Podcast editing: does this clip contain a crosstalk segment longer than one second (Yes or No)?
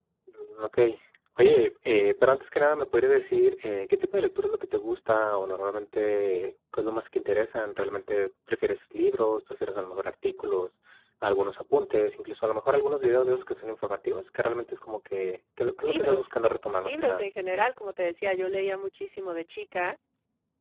No